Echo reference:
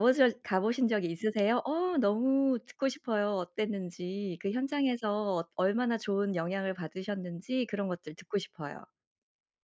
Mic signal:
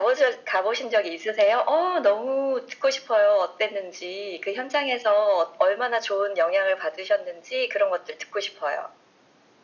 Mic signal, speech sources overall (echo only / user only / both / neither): echo only